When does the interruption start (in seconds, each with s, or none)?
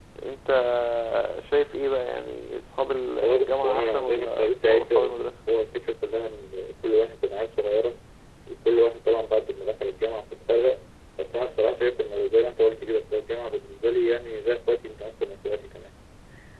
3.2 s